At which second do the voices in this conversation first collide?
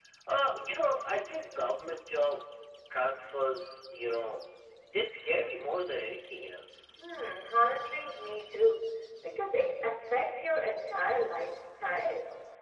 none

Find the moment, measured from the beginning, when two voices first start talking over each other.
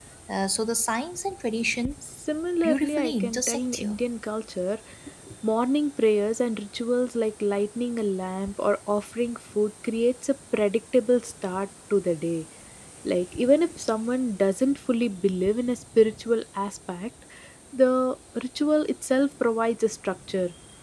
3 s

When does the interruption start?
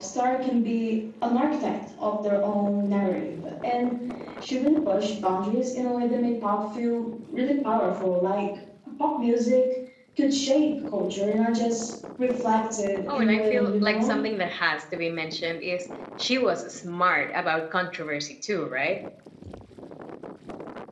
13 s

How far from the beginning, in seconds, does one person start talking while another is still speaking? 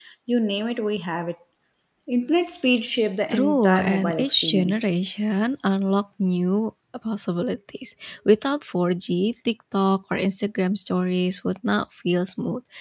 3 s

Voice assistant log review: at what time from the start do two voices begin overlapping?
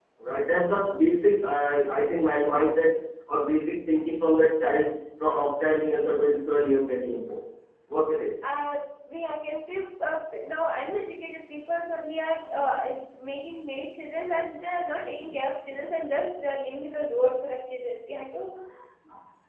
none

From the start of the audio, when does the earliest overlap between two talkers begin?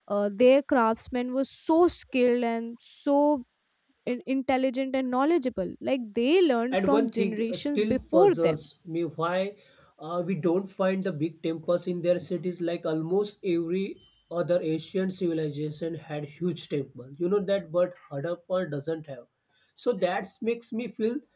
7 s

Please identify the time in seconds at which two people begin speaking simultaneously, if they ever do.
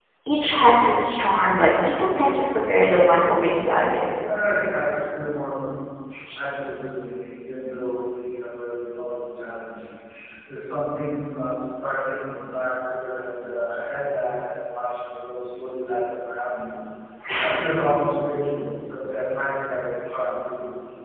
none

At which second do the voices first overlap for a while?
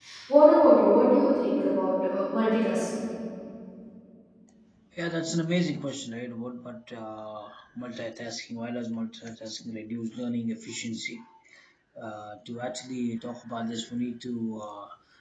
none

